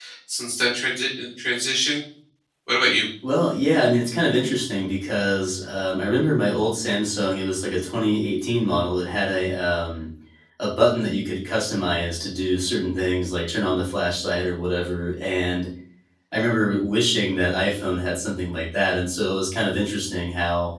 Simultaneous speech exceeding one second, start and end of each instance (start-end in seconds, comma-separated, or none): none